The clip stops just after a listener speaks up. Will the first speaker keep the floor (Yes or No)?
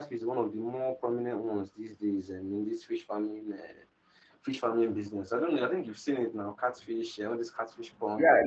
No